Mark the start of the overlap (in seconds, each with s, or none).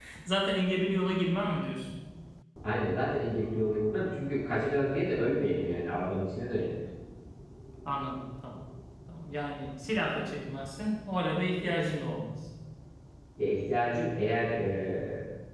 none